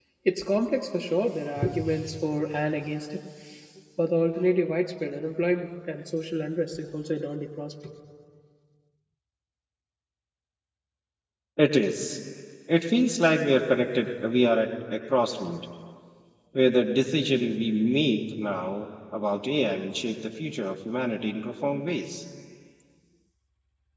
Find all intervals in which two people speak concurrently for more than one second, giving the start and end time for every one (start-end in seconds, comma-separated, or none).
none